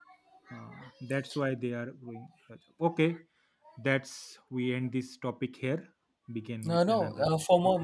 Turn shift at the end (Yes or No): Yes